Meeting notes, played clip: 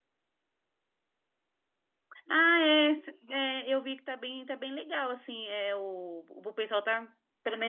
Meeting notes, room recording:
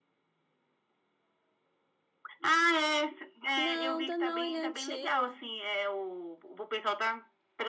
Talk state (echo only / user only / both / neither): both